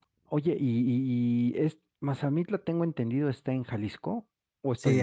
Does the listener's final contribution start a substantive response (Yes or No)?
Yes